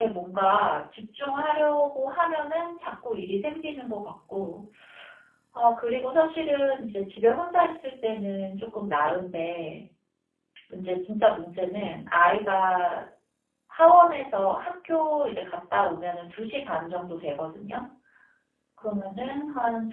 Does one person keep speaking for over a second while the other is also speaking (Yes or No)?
No